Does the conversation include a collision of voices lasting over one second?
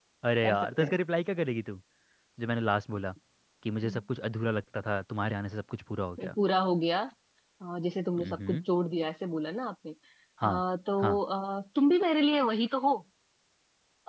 No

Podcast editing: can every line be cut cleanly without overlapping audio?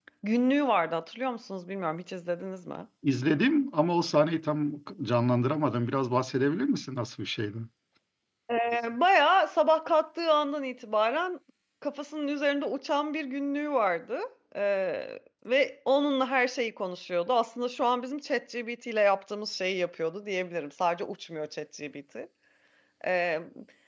Yes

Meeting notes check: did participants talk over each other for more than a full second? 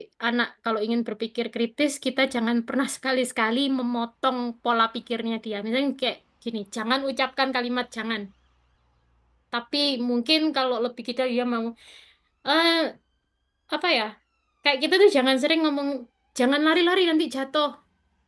No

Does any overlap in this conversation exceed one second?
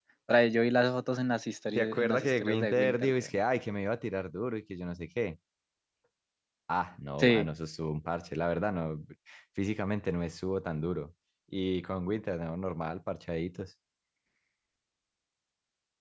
Yes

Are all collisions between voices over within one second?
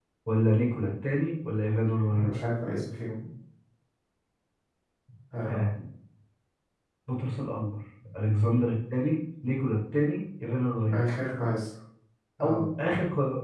Yes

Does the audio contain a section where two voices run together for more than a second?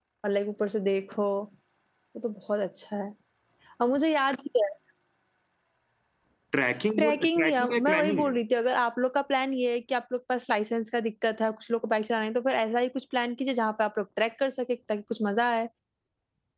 Yes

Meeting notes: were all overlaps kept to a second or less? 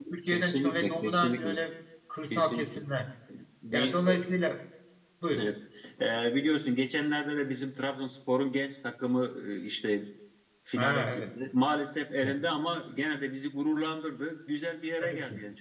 No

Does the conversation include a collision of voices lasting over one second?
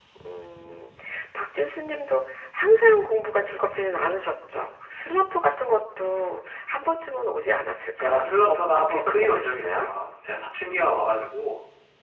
Yes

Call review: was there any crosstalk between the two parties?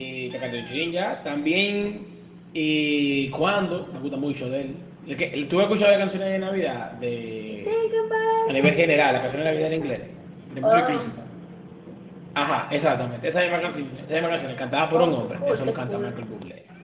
Yes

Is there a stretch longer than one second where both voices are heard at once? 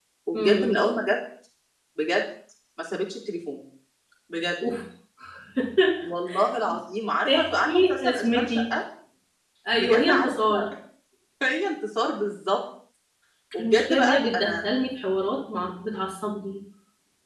Yes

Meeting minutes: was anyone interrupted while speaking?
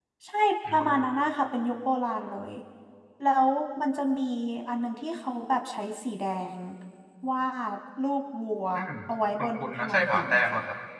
Yes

